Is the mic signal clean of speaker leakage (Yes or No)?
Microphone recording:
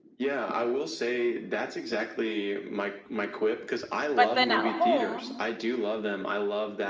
No